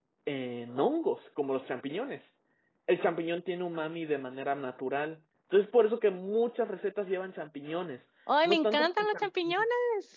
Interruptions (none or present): present